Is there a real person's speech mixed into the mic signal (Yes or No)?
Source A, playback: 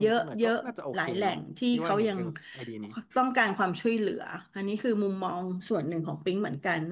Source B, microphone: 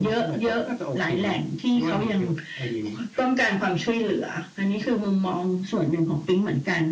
No